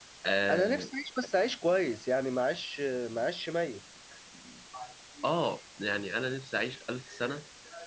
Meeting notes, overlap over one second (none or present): none